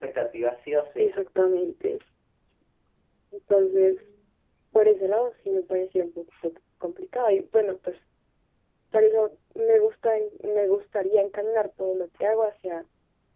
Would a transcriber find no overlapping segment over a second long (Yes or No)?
Yes